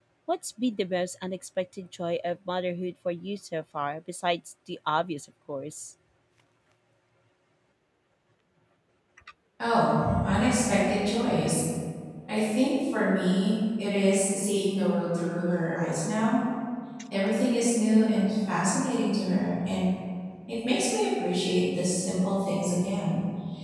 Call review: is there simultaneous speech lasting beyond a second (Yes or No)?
No